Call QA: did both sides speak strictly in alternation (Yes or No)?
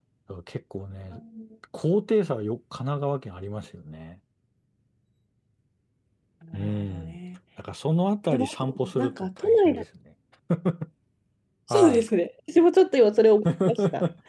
No